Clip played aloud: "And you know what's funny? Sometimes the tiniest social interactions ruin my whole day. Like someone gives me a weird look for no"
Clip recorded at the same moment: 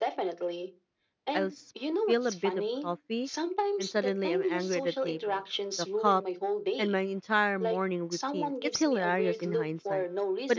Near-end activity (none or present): present